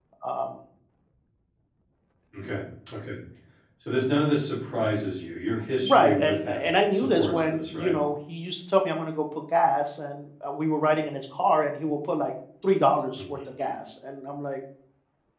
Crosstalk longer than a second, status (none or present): present